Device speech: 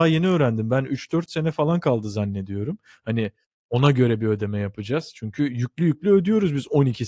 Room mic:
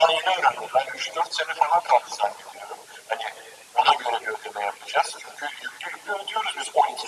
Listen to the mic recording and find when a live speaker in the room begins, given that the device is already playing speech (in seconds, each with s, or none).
none